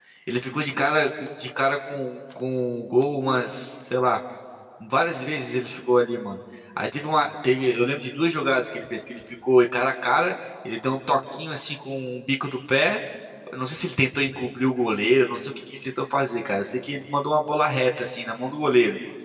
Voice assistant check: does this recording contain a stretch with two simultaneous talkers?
No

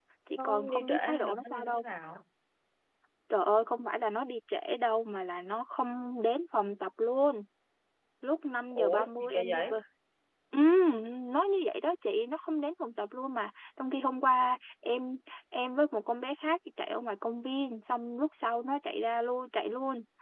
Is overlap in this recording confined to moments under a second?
No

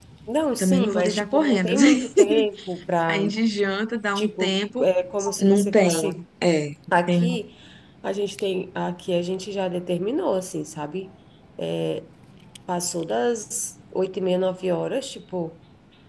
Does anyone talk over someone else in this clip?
Yes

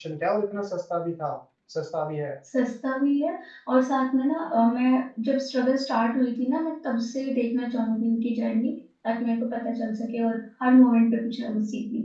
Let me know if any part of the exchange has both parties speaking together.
No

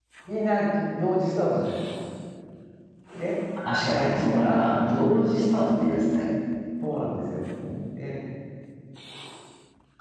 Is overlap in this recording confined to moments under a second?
No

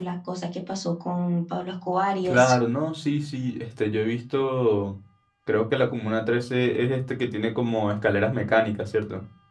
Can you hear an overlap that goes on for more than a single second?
No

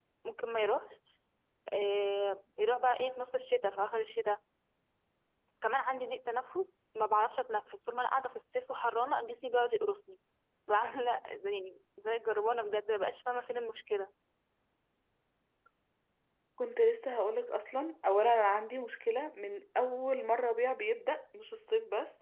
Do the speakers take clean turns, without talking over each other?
Yes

